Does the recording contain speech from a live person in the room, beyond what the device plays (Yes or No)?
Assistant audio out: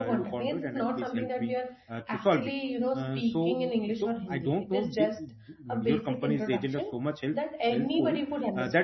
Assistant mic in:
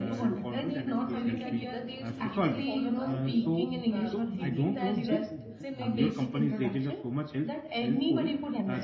Yes